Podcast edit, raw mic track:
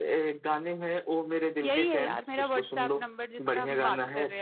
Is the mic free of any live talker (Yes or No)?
No